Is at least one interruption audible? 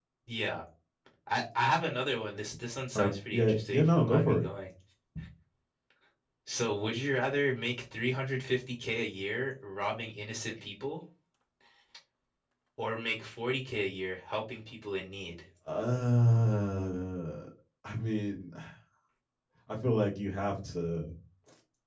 Yes, from 3.0 s

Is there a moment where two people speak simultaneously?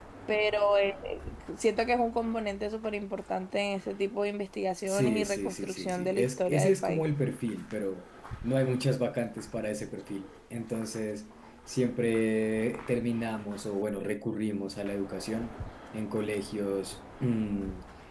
Yes, from 4.9 s

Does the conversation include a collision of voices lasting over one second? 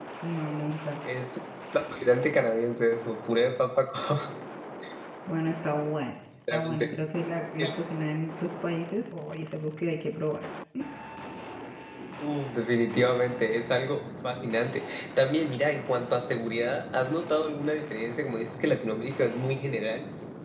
No

